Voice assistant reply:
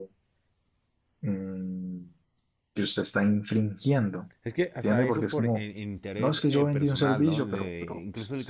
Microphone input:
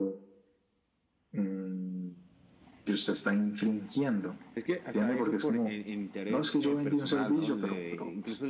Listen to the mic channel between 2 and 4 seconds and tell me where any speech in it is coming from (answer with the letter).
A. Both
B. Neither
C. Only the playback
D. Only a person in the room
C